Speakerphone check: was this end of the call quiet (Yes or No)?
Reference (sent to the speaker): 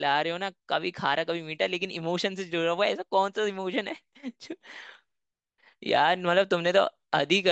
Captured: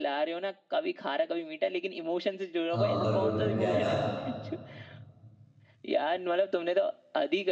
No